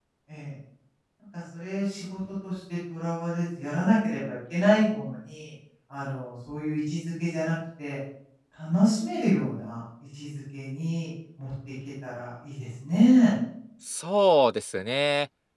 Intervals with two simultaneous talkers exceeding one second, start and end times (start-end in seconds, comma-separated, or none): none